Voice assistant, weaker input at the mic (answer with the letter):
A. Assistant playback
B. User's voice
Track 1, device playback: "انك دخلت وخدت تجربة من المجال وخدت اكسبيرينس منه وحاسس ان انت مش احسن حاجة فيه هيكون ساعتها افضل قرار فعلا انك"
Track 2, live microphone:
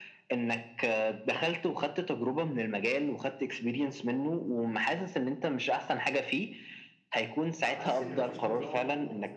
B